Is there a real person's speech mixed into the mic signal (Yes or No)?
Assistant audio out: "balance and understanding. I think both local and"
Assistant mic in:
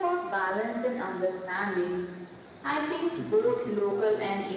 Yes